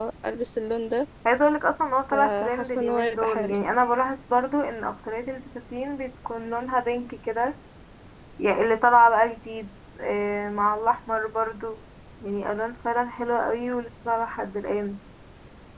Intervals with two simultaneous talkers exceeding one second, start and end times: 2.1-3.5

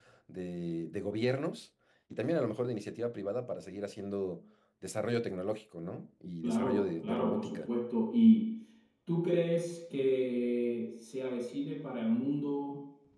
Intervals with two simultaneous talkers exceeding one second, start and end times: 6.4-7.7

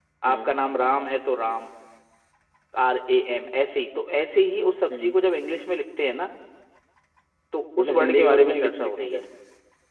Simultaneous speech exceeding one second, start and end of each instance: 7.8-9.2

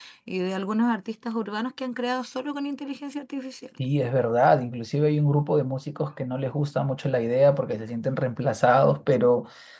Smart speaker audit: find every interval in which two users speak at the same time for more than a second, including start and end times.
none

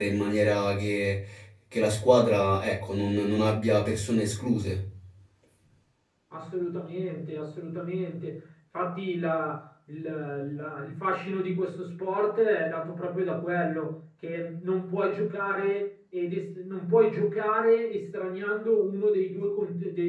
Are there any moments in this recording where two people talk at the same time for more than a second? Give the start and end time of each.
none

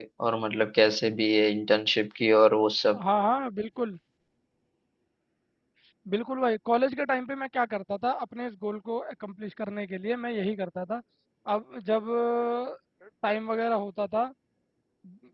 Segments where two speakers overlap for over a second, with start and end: none

